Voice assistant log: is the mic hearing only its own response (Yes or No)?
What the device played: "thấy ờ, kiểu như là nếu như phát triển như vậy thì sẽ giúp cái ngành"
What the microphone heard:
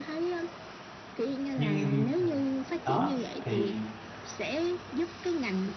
No